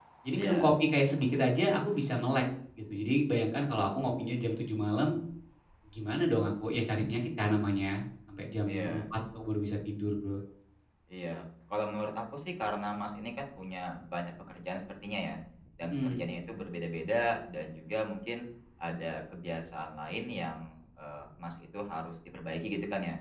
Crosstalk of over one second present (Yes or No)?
No